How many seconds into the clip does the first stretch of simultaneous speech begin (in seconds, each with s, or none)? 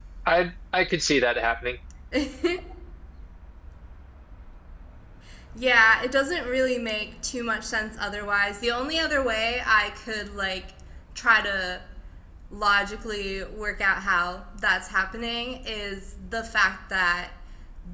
none